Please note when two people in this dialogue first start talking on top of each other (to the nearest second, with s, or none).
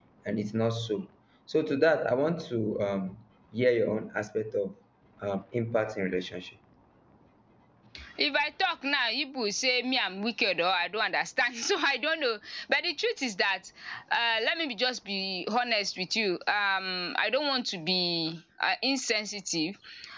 none